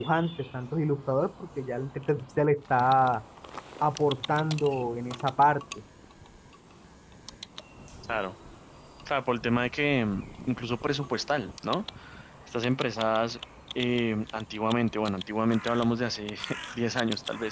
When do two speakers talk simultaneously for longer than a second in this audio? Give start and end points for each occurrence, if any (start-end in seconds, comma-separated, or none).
none